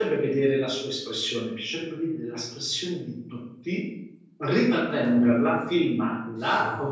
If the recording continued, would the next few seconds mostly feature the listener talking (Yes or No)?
No